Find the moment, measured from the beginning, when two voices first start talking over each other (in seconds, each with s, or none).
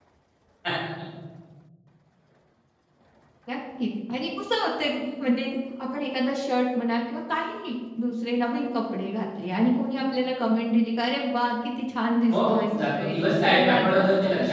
12.3 s